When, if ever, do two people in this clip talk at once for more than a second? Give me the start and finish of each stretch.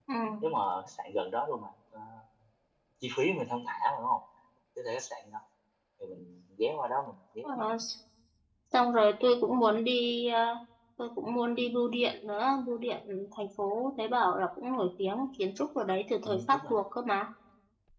none

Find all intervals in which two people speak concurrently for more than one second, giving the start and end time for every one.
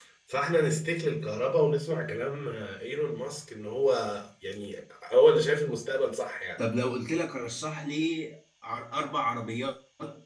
none

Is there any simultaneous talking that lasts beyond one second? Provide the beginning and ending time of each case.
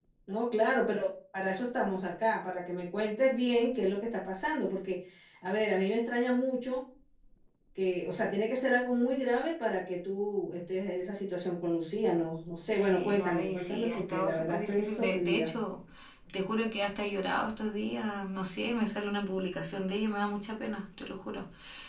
12.7-15.5

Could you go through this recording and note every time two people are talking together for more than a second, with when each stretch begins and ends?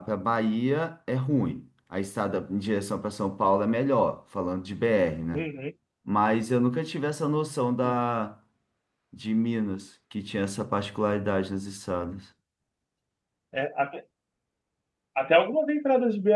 none

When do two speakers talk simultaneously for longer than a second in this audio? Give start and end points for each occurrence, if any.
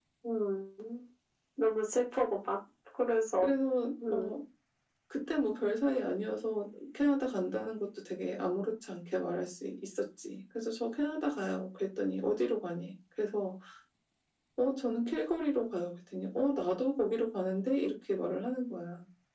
none

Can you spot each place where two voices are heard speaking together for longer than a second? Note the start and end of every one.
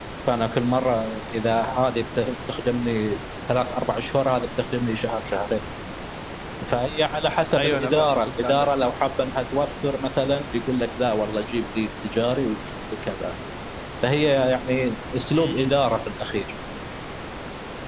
7.6-8.9

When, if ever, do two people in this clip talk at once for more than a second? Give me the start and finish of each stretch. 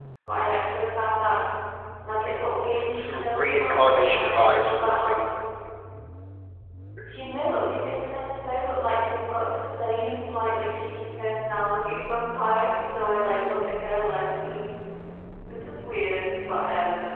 2.8-5.3

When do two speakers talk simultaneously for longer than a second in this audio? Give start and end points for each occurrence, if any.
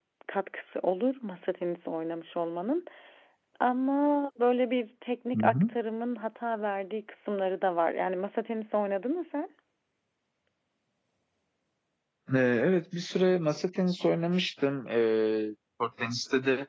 none

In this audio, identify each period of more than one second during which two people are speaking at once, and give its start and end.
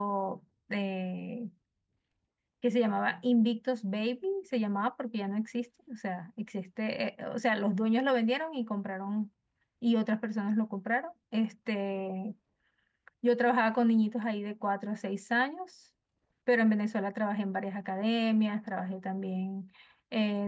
none

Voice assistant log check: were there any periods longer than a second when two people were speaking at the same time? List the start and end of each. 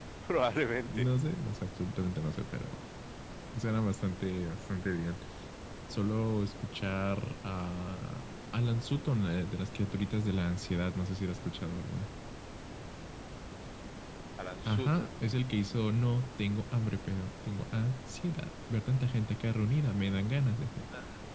none

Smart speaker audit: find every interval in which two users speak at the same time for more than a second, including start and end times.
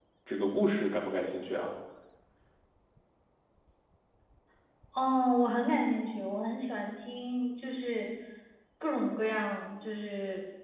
none

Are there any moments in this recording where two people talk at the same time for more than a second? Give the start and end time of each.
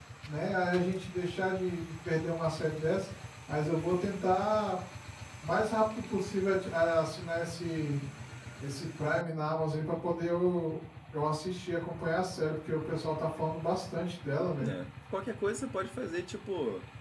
none

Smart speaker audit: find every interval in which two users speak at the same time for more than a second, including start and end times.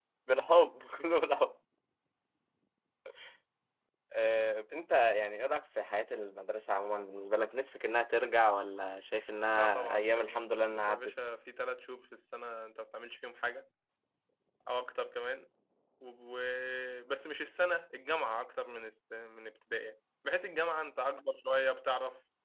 9.5-11.1

